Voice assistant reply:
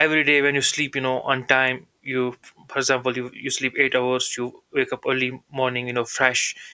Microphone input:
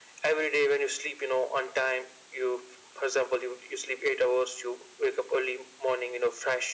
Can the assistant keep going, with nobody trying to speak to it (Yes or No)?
Yes